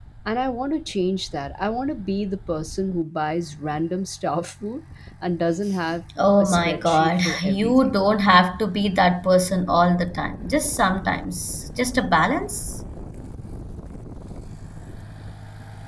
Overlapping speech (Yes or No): Yes